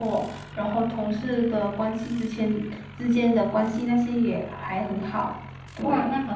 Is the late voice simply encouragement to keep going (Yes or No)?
No